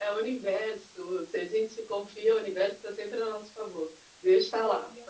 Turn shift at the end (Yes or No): No